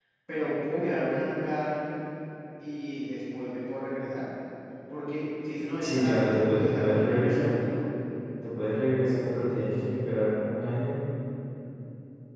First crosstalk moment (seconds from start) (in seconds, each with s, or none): 5.8 s